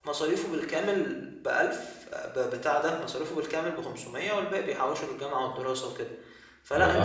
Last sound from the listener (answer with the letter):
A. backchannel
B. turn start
B